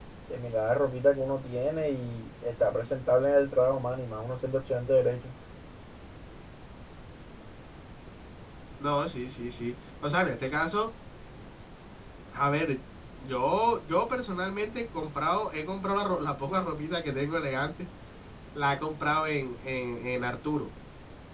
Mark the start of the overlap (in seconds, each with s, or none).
none